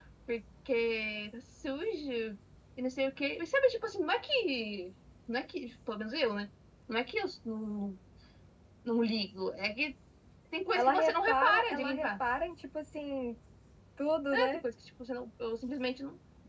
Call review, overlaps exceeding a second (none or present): present